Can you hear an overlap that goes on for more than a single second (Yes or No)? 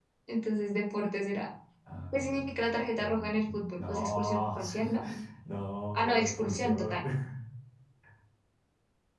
Yes